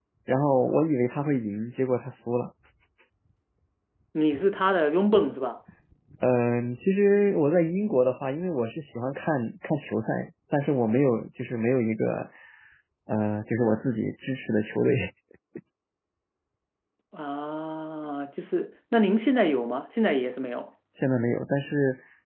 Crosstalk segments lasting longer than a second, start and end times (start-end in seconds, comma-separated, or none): none